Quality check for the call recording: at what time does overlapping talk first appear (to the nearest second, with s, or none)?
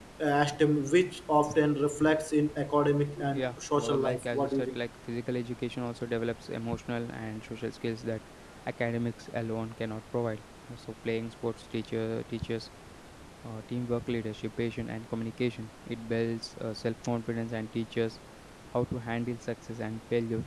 3 s